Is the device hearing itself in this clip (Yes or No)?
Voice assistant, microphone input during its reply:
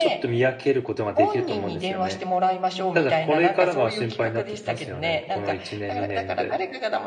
Yes